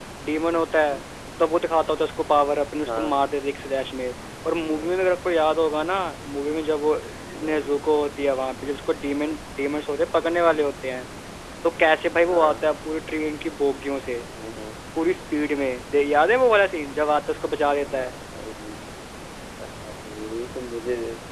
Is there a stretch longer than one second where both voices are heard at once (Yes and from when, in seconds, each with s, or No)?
No